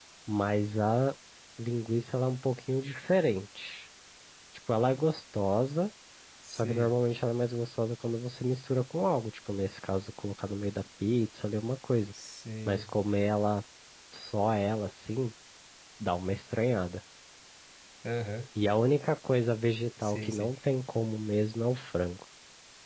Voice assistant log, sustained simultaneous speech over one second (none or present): none